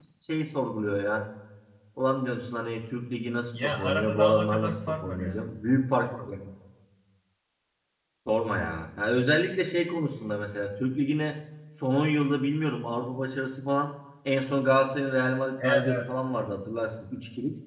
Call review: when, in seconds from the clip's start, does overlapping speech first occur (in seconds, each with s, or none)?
3.6 s